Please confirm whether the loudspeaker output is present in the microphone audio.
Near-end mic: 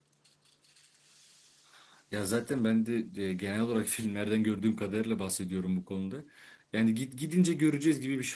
No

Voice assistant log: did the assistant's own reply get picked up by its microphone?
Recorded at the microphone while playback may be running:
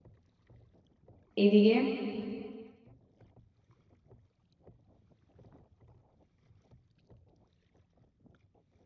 No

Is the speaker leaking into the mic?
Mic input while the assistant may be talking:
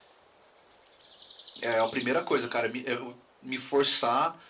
No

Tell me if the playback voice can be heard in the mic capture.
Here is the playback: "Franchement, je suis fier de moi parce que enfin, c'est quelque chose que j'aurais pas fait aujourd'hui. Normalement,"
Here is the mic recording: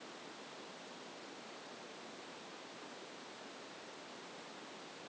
No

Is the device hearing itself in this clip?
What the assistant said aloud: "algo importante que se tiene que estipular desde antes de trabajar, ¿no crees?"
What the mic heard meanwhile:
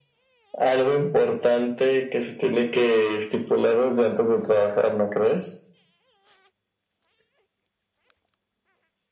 Yes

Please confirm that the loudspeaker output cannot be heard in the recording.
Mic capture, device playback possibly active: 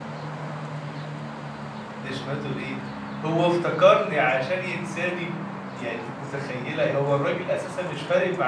Yes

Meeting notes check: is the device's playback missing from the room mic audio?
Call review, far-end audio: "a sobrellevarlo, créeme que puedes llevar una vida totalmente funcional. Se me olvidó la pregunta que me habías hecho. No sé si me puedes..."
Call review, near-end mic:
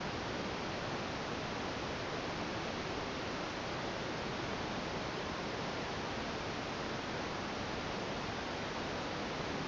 Yes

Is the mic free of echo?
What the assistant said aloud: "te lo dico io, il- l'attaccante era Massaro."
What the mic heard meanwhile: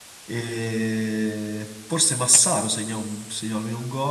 Yes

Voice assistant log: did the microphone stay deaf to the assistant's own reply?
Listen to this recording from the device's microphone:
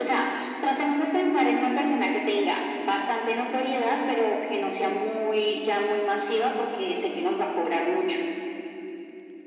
No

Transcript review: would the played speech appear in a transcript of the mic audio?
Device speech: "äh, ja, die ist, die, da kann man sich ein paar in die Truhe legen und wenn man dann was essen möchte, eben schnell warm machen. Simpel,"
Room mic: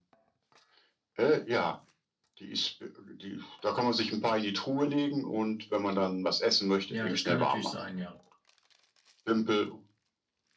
Yes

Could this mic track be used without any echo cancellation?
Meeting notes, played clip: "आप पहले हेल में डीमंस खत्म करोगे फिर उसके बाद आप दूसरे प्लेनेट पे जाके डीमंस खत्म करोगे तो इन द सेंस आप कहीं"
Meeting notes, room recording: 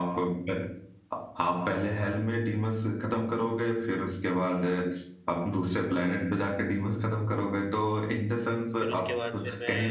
No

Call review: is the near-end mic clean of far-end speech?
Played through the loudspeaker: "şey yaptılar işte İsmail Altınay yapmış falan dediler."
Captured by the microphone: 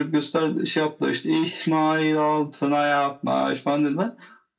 No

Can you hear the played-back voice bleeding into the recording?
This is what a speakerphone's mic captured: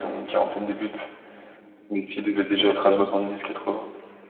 Yes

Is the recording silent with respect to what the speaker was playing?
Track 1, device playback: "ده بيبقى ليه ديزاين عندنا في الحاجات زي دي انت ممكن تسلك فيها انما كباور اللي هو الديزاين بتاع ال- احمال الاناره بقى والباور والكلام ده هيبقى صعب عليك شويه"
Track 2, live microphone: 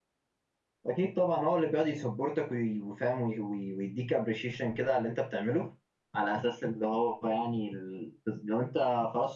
Yes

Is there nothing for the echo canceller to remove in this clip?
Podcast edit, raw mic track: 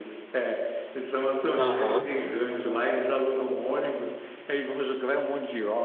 No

